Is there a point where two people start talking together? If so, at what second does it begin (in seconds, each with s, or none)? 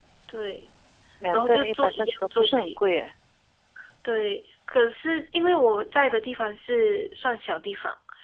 1.3 s